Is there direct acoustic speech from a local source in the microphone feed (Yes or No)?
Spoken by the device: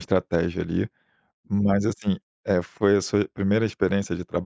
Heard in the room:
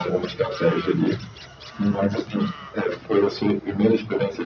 No